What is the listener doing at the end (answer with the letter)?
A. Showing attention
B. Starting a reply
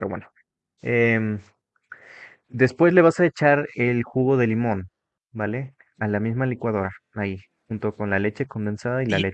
B